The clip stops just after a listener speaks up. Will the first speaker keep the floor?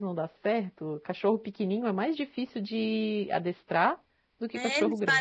No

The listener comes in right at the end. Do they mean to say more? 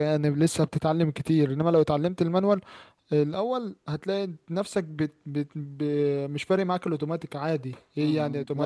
Yes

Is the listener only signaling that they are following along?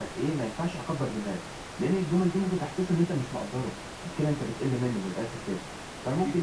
Yes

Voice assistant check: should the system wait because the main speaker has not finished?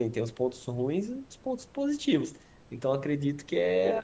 Yes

